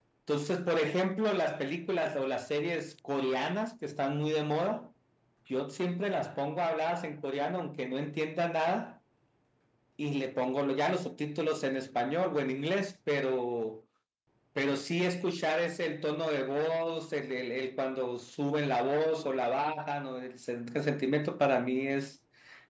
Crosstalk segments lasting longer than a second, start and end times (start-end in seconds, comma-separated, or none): none